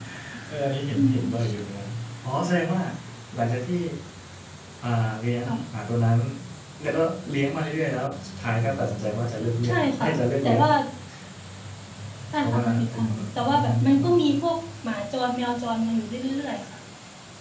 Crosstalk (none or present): present